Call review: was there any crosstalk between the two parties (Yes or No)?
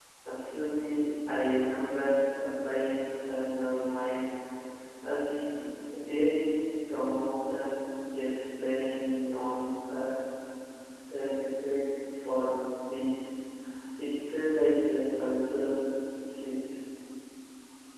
No